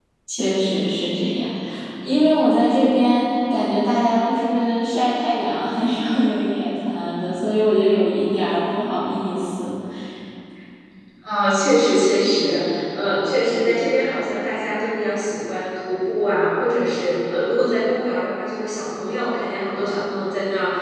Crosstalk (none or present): none